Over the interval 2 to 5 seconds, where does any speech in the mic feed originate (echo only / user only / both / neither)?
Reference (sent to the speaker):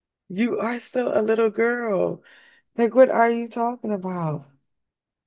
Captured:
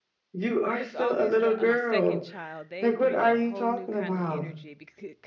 both